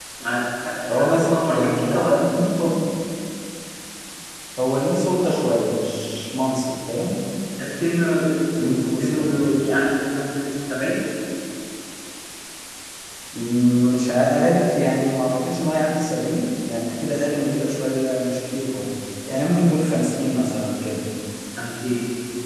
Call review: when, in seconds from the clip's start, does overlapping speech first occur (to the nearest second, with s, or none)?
1 s